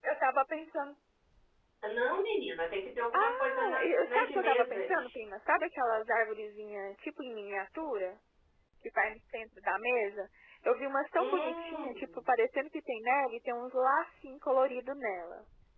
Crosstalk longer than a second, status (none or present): present